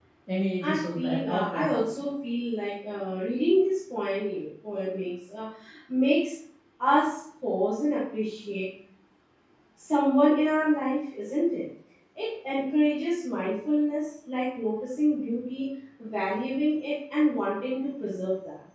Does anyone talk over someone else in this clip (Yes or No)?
Yes